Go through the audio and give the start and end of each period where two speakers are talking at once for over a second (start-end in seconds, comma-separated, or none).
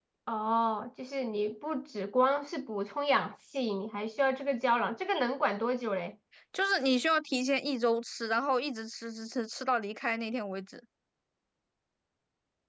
none